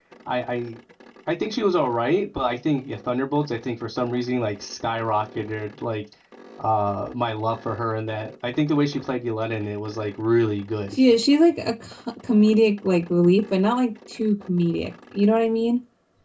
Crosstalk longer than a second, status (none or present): none